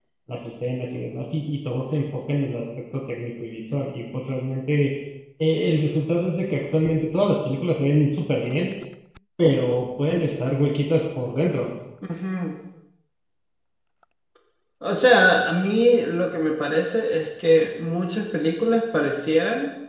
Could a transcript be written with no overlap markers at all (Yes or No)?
Yes